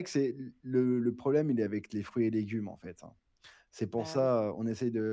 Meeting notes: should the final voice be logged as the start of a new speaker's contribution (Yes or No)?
No